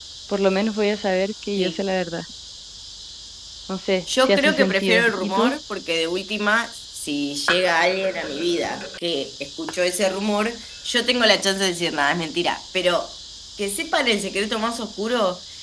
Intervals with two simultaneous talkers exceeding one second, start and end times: 4.3-5.5

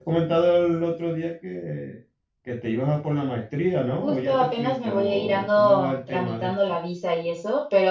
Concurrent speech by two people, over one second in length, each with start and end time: 4.0-6.5

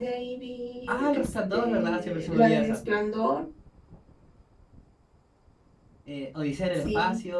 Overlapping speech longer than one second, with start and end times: 0.9-2.8

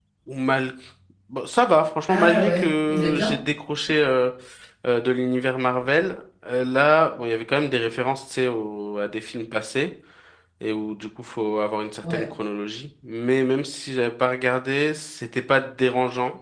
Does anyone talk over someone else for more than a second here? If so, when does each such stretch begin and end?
2.1-3.4

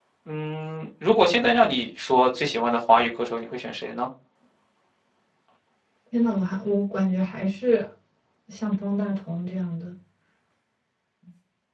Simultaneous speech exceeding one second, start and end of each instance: none

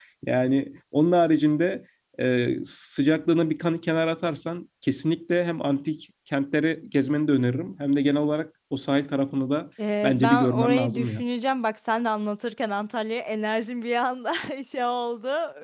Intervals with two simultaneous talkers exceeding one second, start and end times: 10.0-11.2

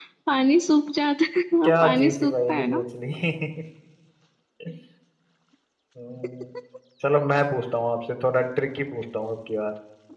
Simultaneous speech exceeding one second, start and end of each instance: 1.6-2.9

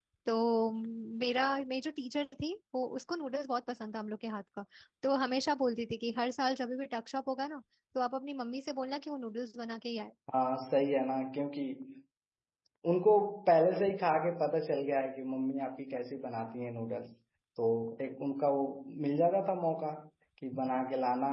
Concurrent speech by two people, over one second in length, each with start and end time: none

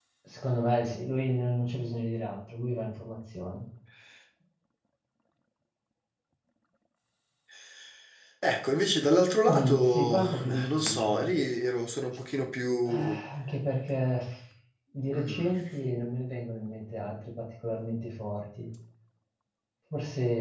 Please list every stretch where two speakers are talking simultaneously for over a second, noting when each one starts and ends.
9.5-11.3

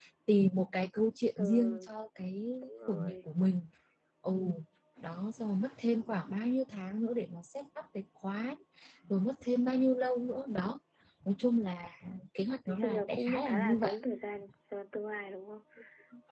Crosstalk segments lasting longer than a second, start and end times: 12.7-13.9

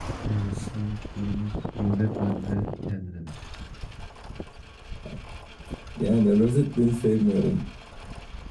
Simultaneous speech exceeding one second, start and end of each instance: none

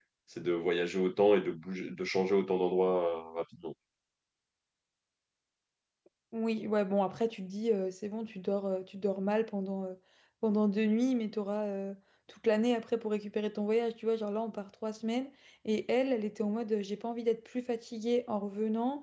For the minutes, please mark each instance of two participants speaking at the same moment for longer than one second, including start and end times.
none

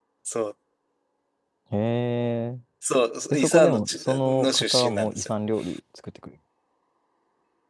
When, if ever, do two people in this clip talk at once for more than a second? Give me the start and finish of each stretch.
3.3-5.3

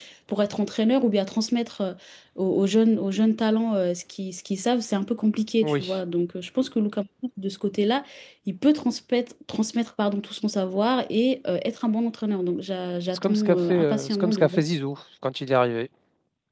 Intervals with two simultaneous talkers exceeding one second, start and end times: 13.1-14.6

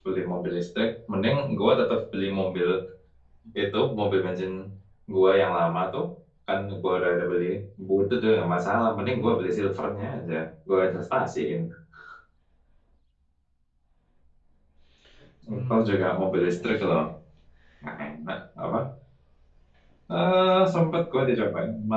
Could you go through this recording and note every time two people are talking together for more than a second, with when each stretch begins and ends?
15.7-17.0

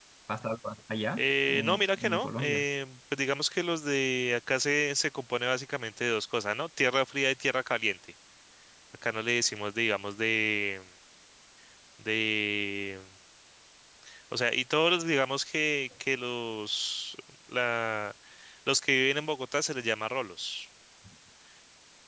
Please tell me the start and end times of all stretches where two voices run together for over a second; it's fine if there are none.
1.2-2.6

